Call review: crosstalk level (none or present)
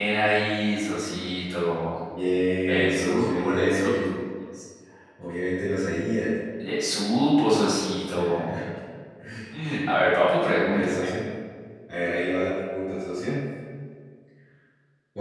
present